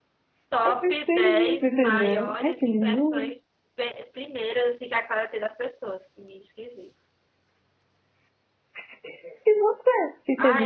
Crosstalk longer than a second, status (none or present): present